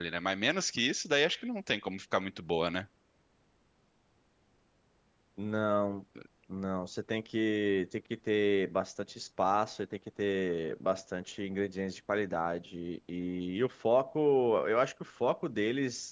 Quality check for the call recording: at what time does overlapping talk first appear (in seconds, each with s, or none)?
none